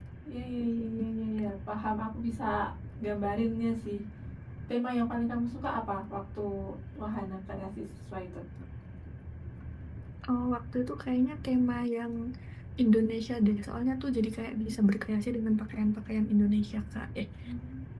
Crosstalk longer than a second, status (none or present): none